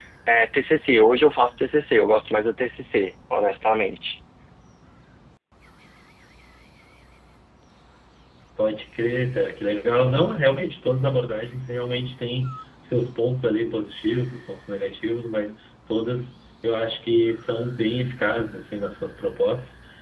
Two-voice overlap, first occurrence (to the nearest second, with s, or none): none